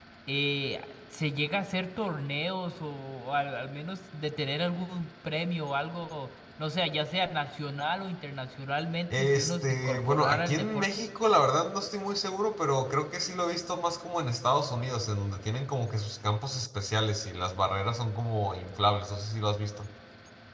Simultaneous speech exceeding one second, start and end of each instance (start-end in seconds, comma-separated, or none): 9.2-11.0